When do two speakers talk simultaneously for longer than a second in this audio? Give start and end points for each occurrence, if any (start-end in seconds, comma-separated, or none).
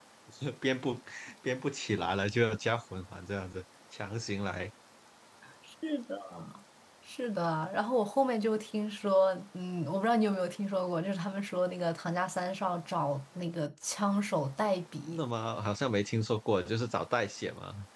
none